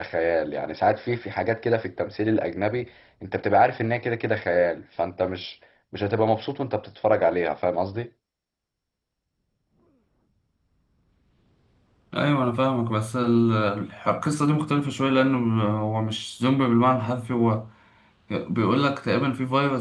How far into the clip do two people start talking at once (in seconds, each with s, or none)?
none